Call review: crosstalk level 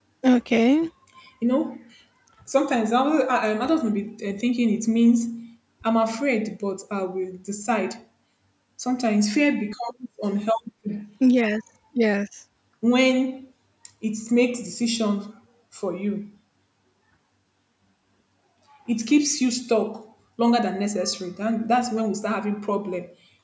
none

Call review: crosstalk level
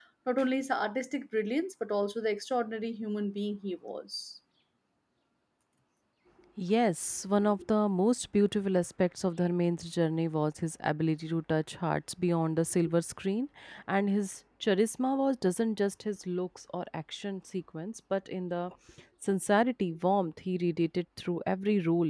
none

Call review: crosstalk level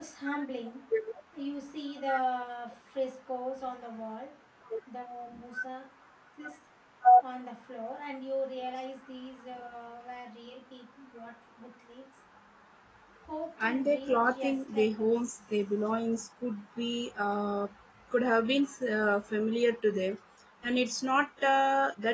present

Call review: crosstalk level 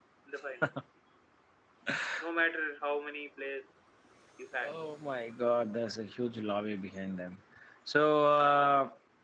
none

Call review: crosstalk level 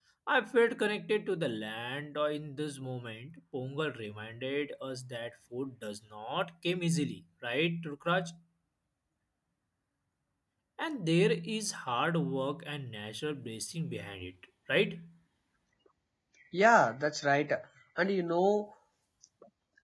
none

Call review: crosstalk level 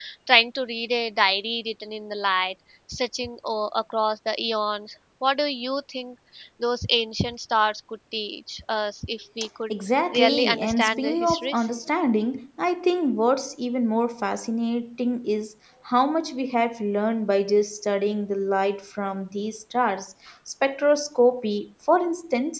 present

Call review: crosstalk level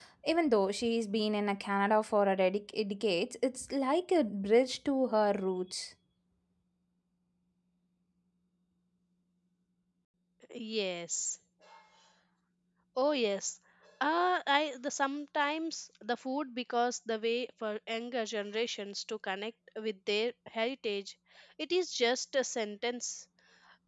none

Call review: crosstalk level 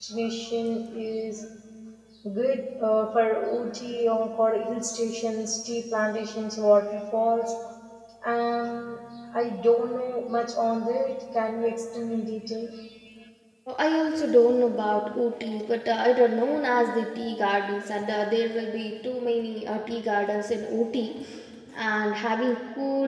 none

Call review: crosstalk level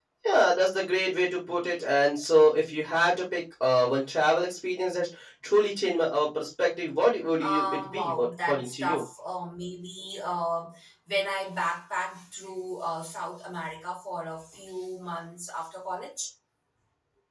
present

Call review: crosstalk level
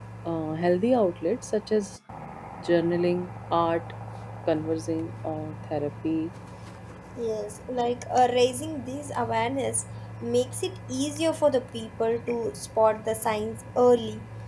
none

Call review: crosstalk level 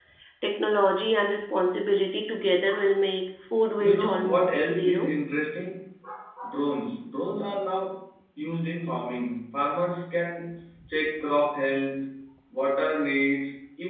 present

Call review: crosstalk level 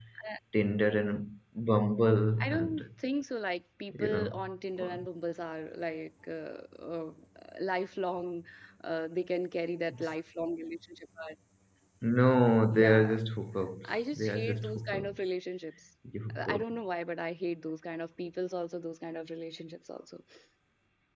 present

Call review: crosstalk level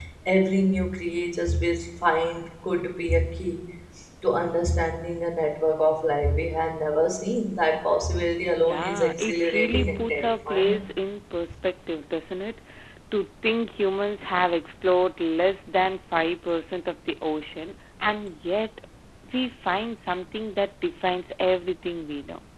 present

